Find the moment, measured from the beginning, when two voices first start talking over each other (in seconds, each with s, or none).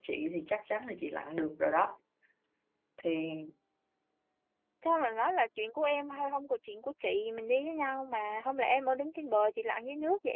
none